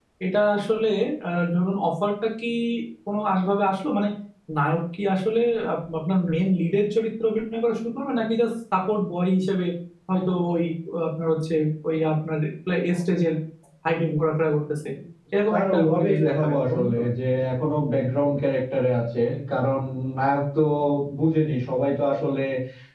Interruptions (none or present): present